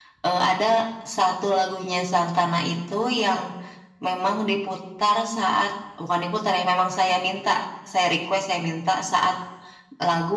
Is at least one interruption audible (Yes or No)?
No